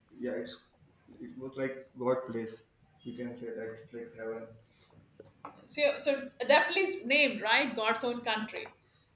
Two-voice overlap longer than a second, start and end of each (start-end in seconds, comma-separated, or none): none